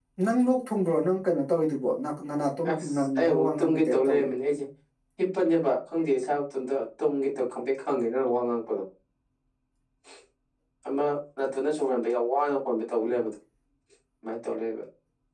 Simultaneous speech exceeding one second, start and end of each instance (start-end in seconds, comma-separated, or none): 2.7-4.3